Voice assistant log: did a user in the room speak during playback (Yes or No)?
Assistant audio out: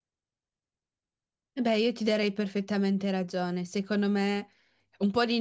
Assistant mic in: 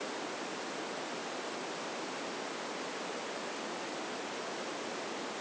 No